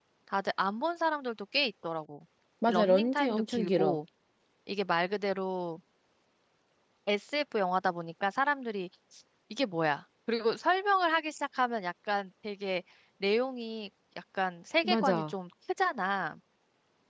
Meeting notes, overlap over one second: present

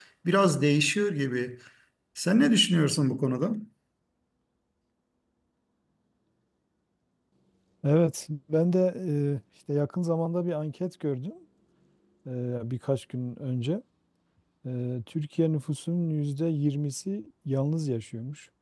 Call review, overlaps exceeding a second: none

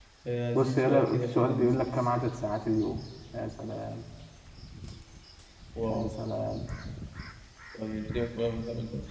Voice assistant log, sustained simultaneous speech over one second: present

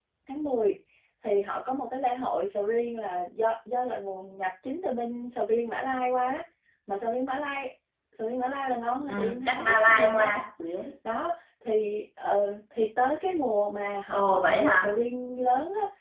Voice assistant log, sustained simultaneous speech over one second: present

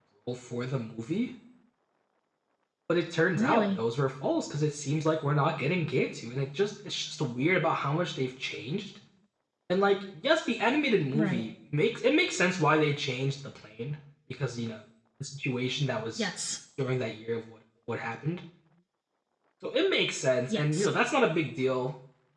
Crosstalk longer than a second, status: none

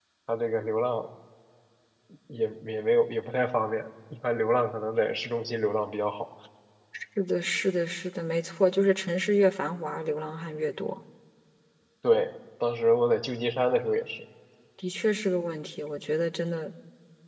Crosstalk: none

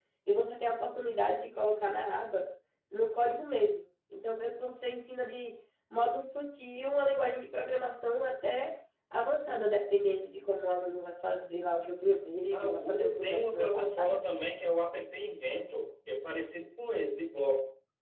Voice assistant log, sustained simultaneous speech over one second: present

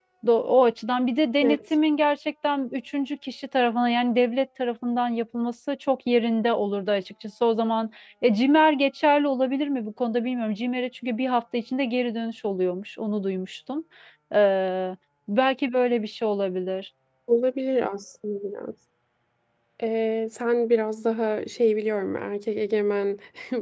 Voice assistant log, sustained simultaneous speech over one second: none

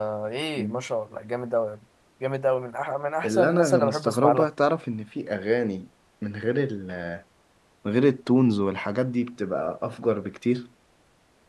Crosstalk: present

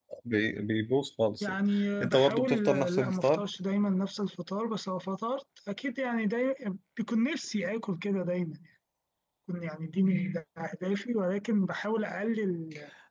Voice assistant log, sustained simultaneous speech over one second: present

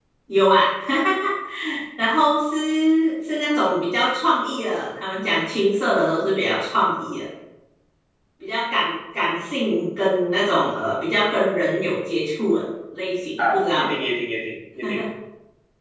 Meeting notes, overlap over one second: none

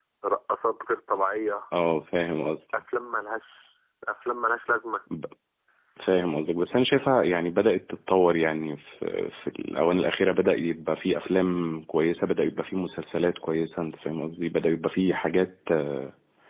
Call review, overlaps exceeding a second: none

